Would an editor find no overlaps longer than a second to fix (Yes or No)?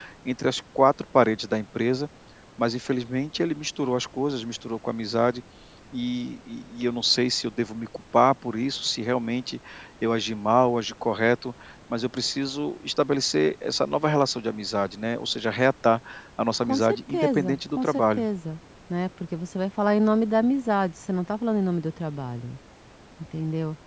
No